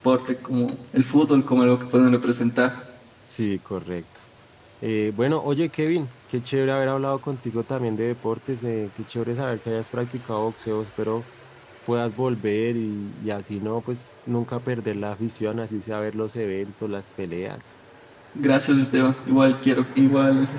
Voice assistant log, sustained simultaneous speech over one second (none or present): none